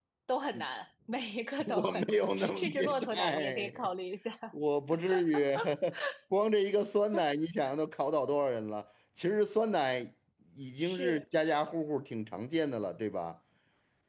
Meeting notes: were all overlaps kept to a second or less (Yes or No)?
No